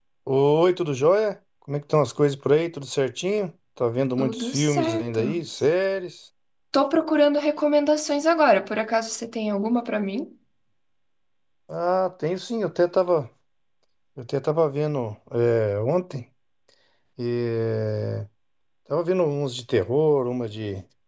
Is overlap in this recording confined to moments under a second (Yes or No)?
No